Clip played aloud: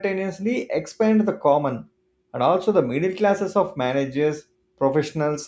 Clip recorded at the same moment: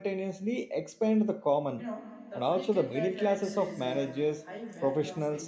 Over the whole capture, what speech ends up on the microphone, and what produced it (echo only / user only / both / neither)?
both